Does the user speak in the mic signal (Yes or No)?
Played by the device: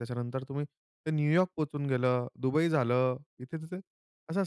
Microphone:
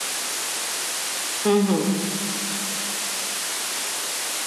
Yes